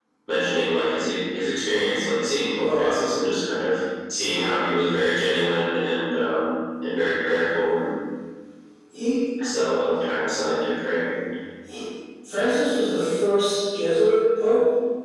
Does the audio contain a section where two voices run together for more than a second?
No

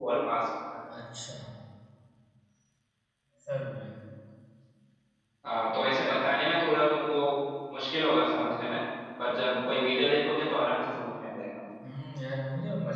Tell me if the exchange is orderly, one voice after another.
Yes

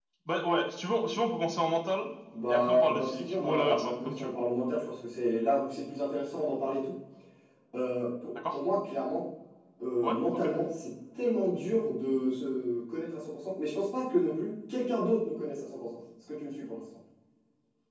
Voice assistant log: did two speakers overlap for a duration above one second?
Yes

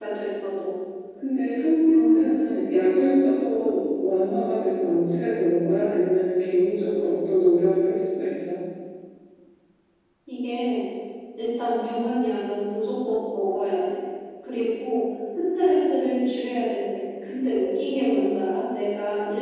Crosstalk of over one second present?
No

